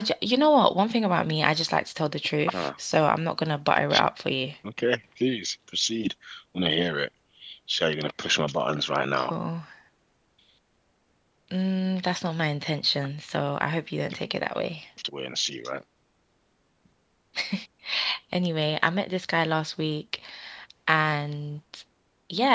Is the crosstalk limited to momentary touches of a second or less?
Yes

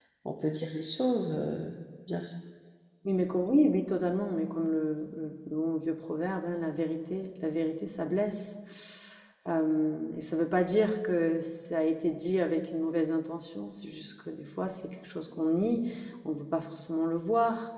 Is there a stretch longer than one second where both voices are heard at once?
No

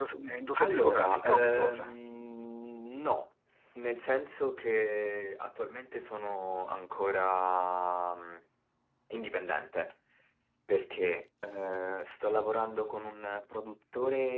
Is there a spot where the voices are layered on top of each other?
Yes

